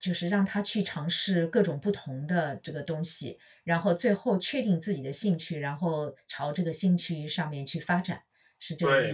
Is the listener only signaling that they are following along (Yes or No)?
No